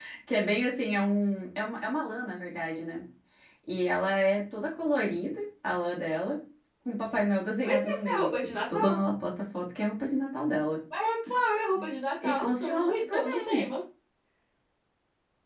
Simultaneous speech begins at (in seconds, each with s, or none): 7.6 s